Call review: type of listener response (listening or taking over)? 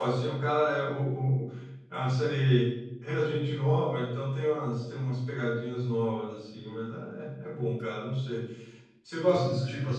listening